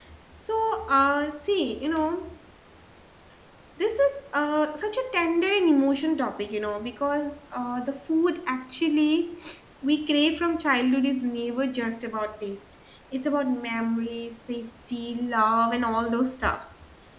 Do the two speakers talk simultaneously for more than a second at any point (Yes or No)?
No